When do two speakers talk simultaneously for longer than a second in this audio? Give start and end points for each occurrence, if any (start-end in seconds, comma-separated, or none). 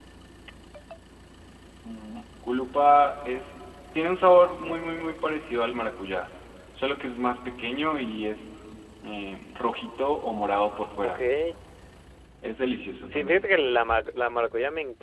none